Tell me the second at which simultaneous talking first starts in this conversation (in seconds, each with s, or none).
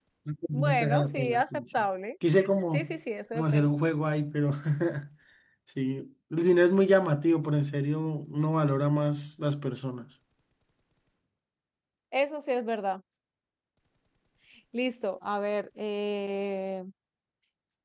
0.5 s